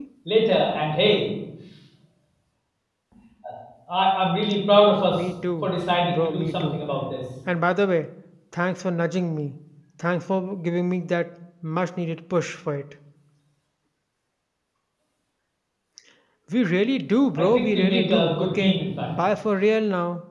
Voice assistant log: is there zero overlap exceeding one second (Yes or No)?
No